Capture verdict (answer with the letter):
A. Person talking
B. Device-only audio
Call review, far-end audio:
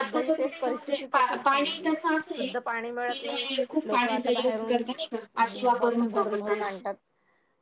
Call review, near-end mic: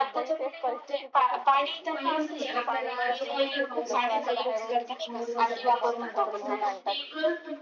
A